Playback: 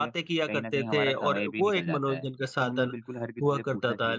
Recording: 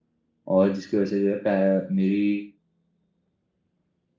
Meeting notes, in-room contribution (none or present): present